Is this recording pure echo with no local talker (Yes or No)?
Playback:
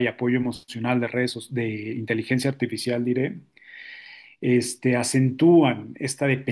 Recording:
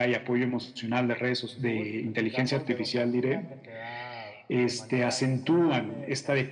No